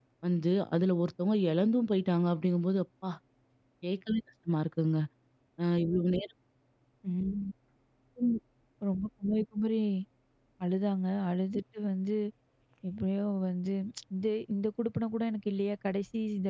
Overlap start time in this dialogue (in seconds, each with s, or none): none